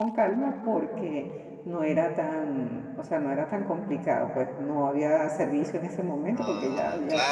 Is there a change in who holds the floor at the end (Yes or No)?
Yes